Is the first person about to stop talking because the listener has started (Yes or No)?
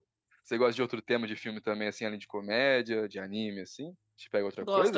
Yes